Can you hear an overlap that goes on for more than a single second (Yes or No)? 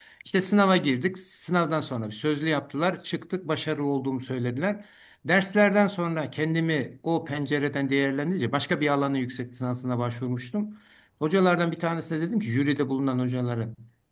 No